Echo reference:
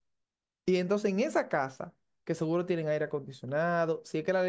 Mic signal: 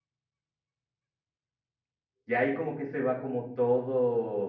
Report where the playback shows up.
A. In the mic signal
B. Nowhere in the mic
B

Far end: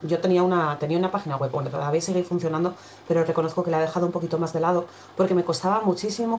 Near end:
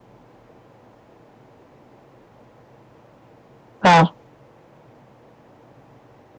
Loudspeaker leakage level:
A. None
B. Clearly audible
A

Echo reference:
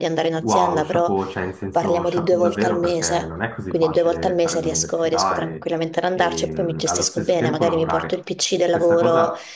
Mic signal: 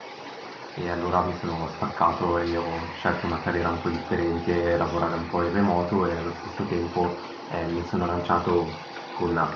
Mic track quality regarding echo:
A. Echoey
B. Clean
B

